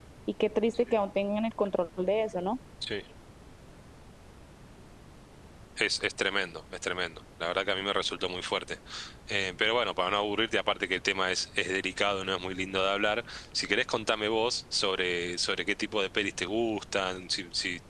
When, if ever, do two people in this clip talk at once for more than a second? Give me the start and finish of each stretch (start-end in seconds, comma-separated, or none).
none